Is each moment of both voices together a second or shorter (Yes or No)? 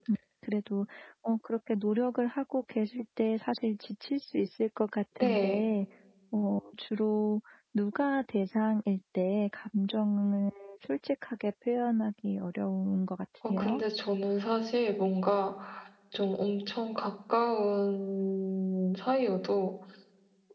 Yes